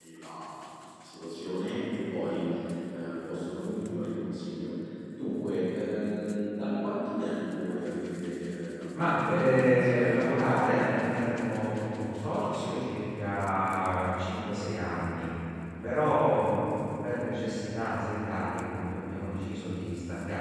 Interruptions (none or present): present